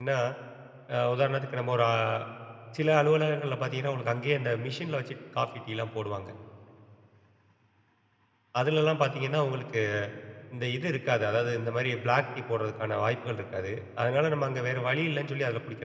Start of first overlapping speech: none

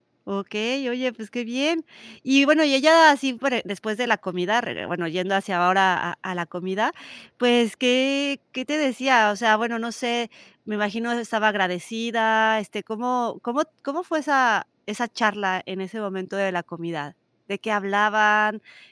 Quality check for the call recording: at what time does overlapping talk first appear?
none

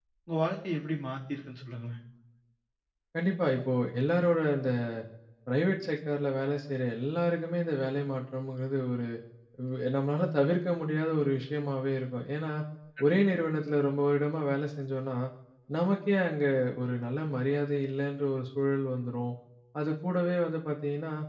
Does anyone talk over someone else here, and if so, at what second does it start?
none

